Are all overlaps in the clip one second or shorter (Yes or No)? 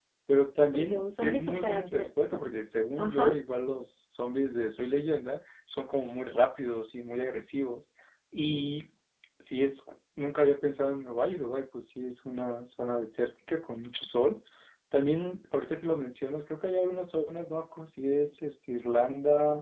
No